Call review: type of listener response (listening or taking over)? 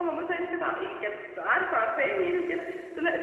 listening